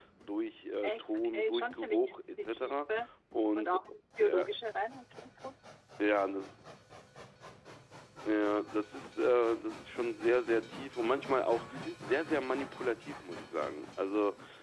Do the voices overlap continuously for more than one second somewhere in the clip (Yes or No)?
Yes